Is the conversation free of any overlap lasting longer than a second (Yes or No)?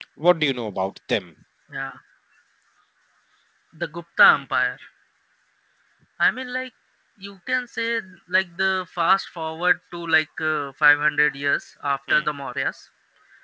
Yes